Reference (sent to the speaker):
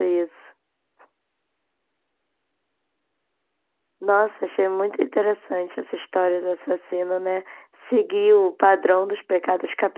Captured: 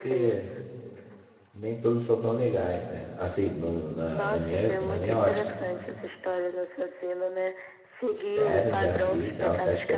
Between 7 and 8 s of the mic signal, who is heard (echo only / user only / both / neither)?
echo only